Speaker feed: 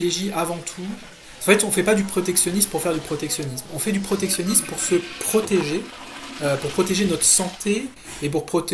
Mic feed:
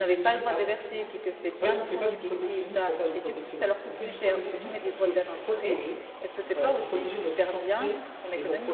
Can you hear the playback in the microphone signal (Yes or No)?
Yes